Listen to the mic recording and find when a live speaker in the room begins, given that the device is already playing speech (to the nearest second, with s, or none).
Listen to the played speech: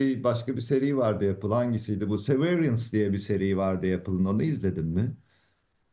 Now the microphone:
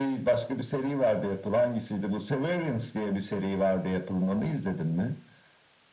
none